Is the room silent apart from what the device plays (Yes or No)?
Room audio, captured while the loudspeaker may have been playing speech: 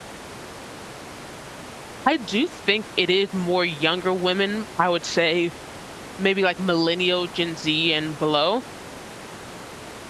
No